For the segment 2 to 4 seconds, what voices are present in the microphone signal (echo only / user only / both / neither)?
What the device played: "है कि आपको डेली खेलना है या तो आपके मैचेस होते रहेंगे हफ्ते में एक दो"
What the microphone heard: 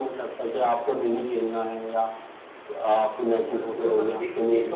both